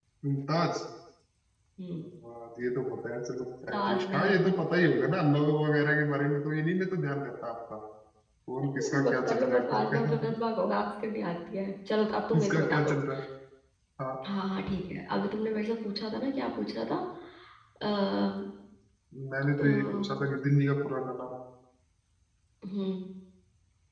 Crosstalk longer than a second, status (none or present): present